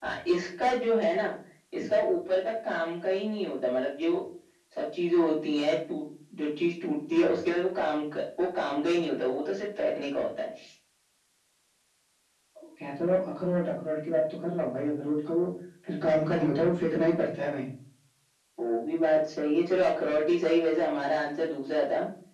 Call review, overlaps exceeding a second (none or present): none